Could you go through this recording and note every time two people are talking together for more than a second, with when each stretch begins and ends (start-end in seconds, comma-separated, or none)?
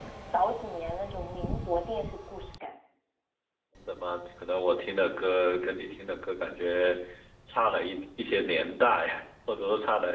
none